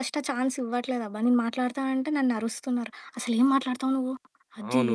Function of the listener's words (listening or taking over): taking over